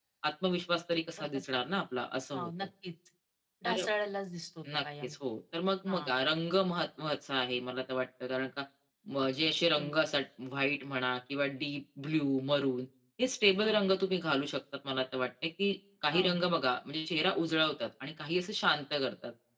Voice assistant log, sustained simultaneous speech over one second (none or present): none